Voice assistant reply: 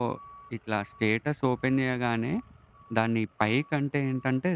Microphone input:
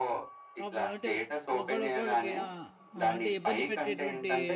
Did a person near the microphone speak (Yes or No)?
Yes